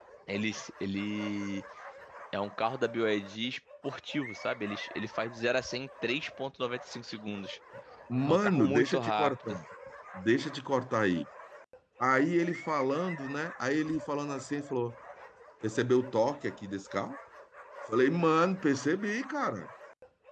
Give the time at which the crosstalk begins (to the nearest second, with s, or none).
8 s